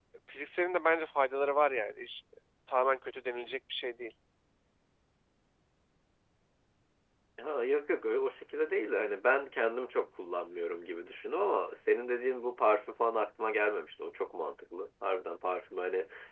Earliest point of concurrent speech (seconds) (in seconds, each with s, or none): none